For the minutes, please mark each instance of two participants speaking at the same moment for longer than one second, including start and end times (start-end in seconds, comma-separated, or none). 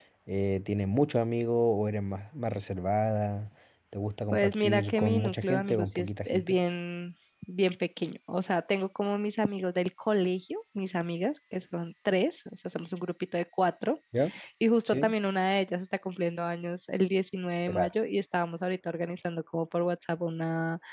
4.3-6.6